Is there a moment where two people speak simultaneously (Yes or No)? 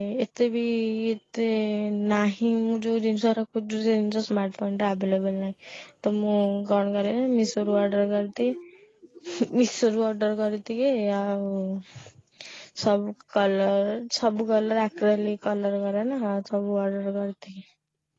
No